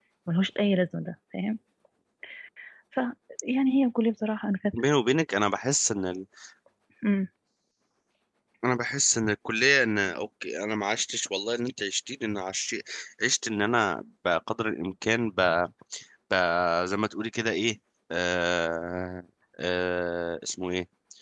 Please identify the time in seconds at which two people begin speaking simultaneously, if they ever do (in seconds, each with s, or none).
none